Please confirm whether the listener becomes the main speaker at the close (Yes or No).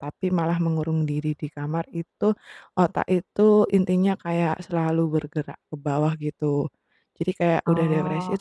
No